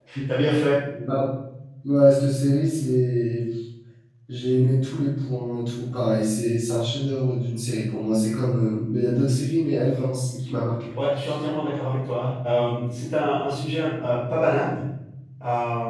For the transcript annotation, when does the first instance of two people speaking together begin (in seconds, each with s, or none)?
none